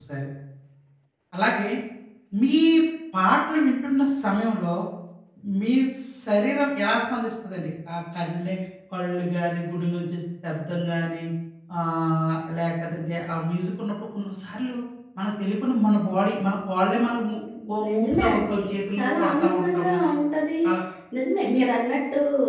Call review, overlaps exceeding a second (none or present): present